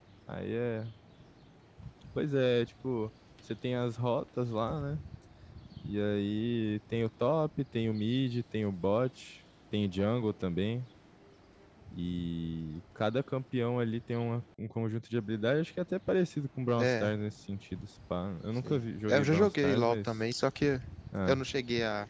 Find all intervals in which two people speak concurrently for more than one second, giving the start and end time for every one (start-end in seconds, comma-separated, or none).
18.6-20.1